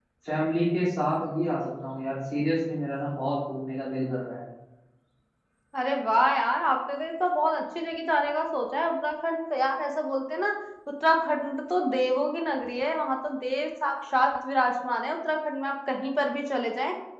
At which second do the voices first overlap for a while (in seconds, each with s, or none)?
none